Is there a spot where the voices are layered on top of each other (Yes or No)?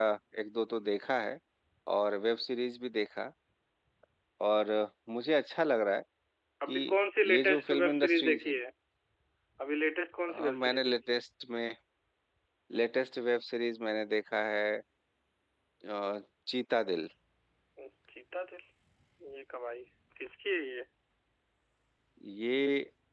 Yes